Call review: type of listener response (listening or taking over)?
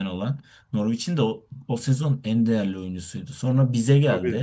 listening